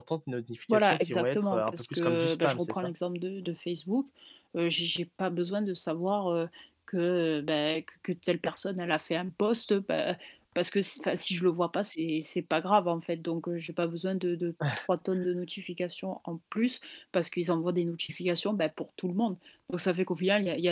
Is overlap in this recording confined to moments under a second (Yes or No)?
No